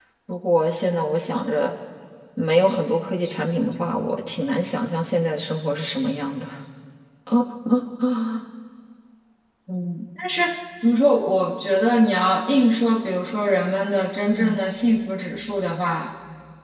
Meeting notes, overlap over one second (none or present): none